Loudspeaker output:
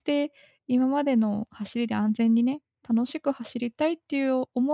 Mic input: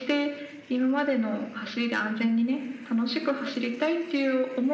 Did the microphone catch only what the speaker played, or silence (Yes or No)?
Yes